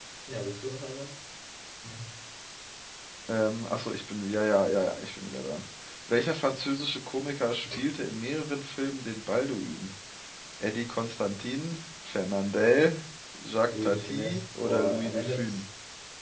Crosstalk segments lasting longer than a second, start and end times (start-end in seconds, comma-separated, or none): 13.8-15.6